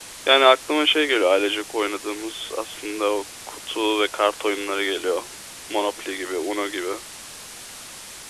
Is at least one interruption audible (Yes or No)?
No